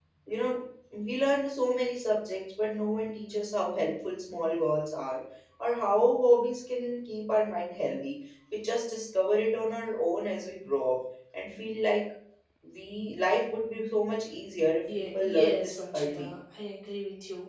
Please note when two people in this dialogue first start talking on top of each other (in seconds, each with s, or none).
14.9 s